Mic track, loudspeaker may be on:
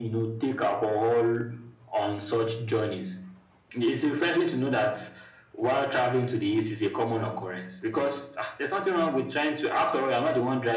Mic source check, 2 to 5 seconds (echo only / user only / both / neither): echo only